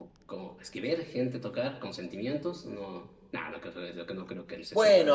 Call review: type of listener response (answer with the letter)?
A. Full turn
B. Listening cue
A